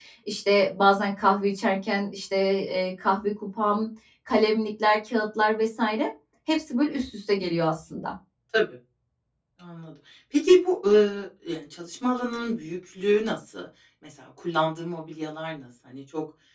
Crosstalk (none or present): none